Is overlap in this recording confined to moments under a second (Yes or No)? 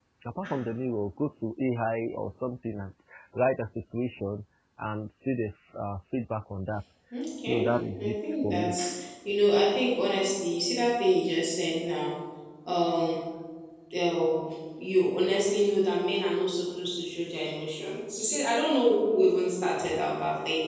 No